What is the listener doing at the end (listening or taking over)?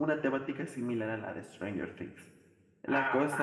listening